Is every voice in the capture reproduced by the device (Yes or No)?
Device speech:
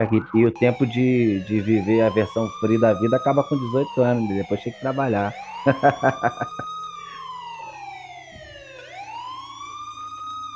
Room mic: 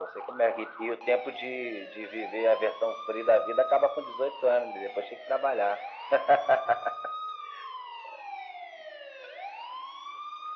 Yes